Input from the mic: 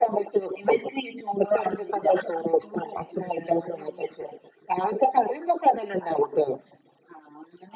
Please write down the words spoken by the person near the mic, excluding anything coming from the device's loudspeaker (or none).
none